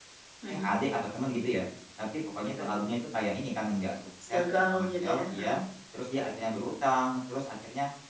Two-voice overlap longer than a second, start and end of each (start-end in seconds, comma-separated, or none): 4.3-5.6